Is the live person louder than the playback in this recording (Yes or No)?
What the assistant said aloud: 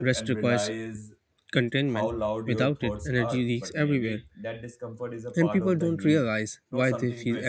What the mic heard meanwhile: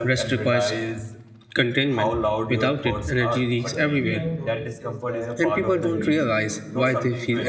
No